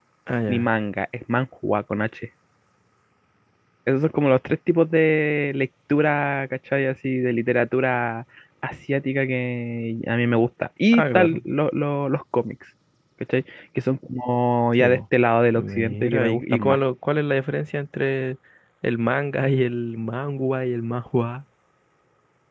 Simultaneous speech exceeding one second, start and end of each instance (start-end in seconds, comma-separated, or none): 15.6-16.8